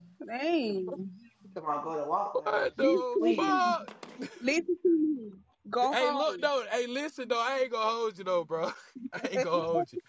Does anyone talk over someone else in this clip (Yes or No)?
Yes